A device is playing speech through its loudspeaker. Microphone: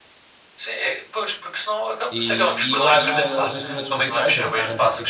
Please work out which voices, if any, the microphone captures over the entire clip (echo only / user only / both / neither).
both